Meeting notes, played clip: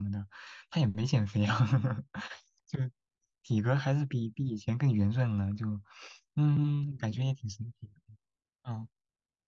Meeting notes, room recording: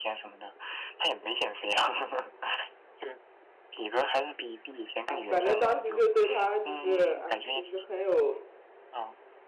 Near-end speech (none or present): present